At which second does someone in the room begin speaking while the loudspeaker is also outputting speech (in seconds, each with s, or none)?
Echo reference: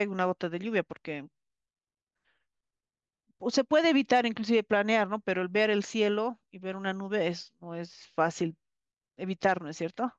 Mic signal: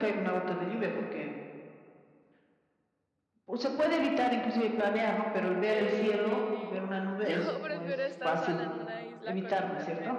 5.7 s